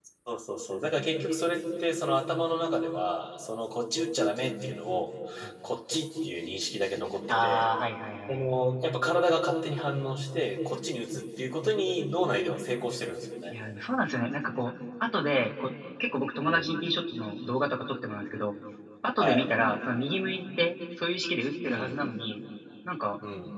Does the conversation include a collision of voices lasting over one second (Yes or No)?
No